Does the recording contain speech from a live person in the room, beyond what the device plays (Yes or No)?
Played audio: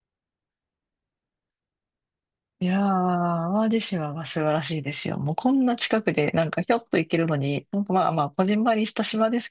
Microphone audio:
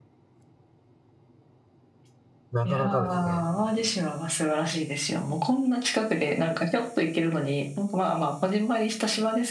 Yes